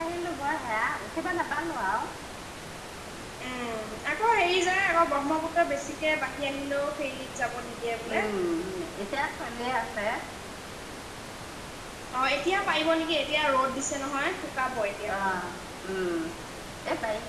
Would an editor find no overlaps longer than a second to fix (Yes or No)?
Yes